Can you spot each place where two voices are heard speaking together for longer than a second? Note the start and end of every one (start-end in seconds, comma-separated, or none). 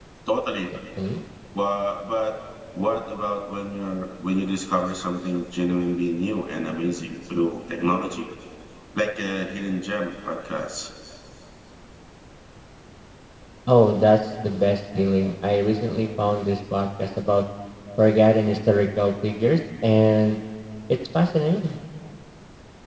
none